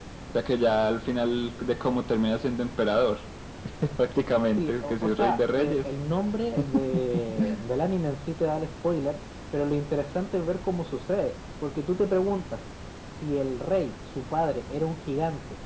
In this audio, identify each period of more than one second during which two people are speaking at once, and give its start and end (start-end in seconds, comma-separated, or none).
4.6-5.9